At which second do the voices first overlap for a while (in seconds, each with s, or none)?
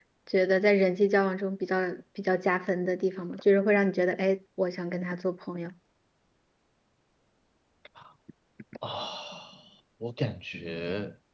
none